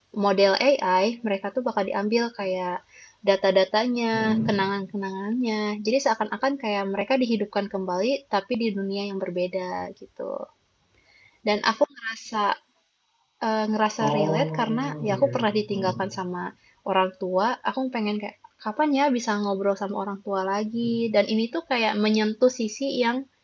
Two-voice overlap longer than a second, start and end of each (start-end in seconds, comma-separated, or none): 14.0-15.2